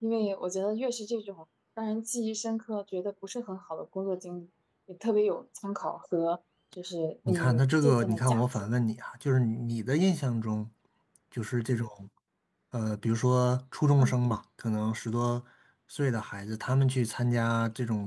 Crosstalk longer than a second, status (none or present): present